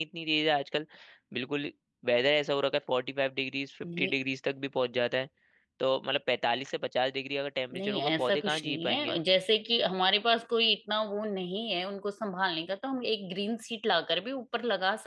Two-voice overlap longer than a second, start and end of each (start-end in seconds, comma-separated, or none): 7.7-9.2